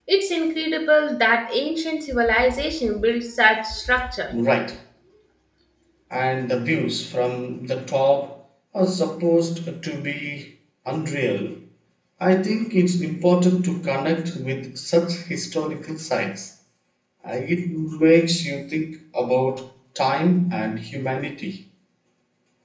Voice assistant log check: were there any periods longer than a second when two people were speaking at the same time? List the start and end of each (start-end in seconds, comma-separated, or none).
none